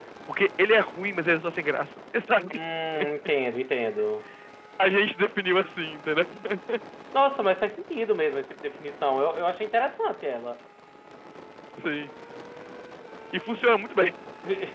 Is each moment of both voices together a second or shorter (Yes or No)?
Yes